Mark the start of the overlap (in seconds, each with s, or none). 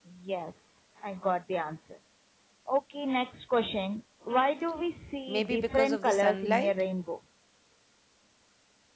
5.3 s